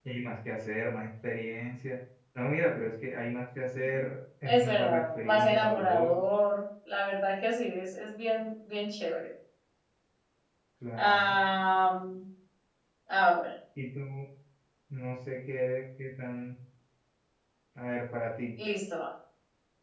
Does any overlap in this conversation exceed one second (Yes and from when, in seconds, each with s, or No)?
Yes, from 4.4 s